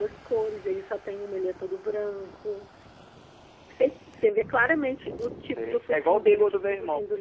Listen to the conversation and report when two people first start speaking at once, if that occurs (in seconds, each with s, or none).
5.5 s